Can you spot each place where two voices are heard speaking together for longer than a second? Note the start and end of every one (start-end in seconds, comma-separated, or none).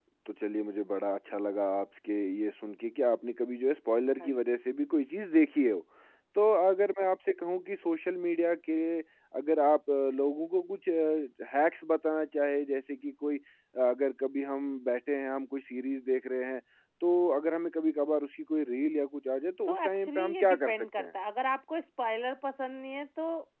19.7-21.2